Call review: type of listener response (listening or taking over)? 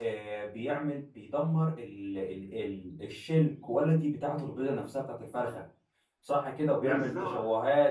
listening